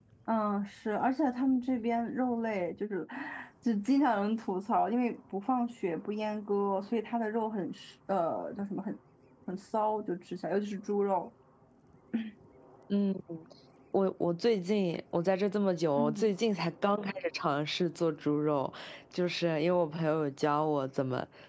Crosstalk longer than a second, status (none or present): none